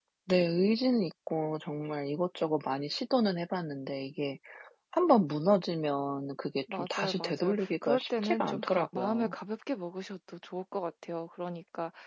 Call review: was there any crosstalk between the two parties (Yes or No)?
Yes